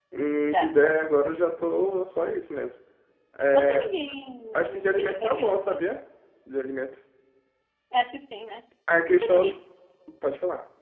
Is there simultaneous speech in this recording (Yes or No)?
Yes